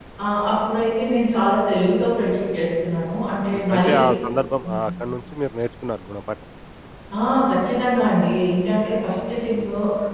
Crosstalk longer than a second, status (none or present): none